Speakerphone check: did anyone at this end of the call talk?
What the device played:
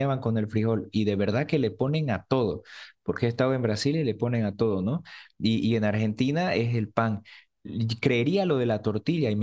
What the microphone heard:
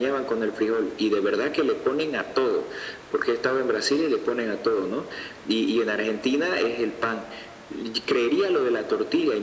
No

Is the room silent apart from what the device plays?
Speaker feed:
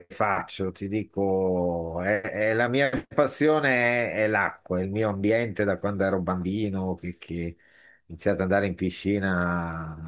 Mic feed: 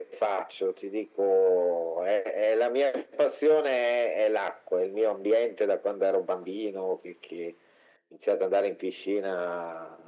Yes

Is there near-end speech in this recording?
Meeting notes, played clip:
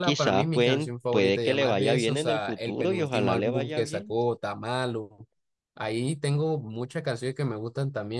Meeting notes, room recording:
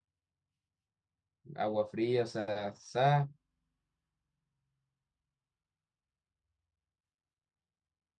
Yes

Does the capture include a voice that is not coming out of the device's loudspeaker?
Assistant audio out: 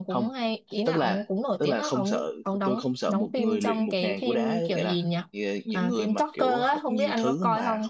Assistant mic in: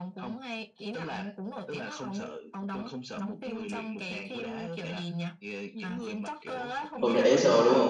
Yes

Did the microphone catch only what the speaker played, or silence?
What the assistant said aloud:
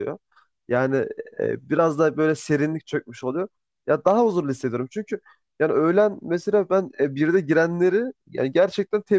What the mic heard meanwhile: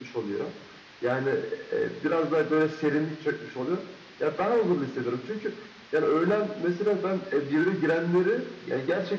Yes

